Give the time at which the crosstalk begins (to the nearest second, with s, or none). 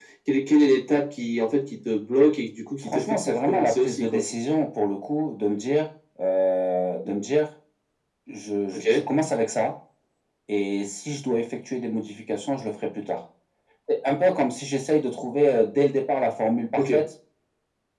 3 s